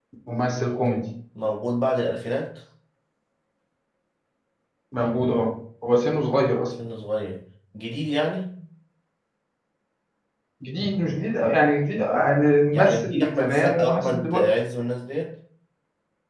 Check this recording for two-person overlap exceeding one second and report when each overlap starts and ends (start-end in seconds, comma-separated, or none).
12.7-14.5